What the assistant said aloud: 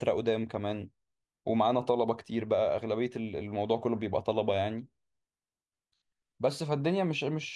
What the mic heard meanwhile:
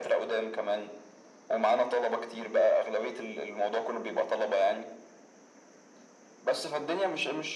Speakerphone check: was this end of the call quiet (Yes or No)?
Yes